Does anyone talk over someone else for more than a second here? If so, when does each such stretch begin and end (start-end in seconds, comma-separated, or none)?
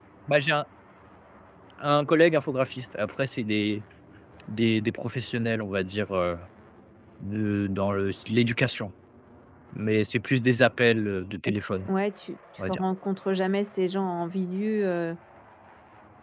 none